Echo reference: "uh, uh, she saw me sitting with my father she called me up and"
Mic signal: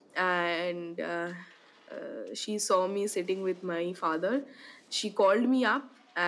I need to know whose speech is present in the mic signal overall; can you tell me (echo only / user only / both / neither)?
echo only